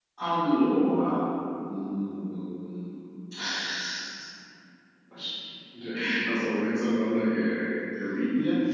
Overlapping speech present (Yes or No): No